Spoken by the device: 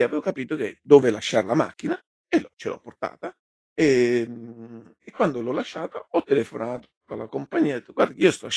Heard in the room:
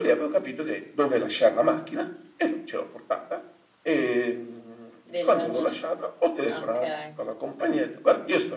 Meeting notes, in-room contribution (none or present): present